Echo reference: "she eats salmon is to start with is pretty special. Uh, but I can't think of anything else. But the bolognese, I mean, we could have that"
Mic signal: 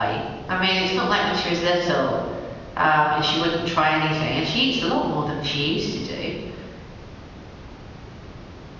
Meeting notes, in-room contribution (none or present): present